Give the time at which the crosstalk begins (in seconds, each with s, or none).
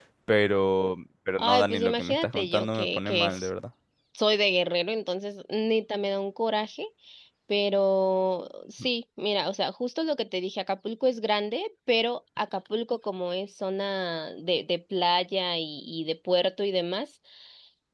1.4 s